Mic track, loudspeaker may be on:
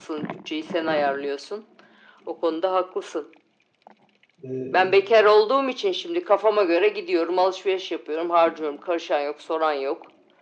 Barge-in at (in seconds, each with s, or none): 4.4 s